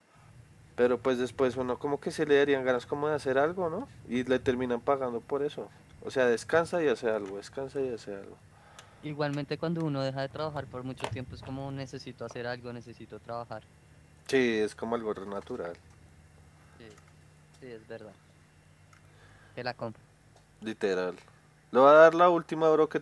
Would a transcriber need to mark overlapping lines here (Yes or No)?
No